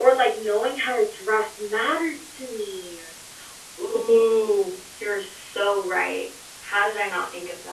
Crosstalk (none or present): none